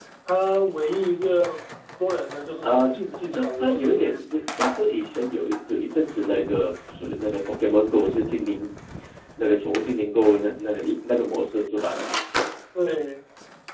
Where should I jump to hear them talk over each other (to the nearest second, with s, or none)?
3 s